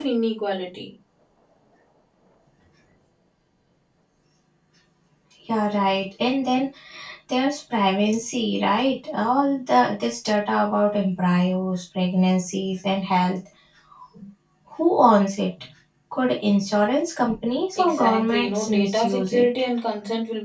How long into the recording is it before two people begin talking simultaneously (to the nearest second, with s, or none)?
18 s